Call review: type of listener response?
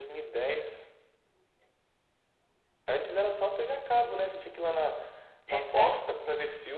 listening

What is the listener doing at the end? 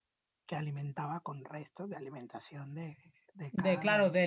taking over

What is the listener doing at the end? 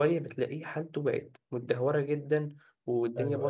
listening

